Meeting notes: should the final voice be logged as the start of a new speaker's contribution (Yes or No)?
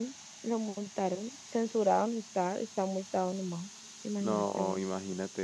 Yes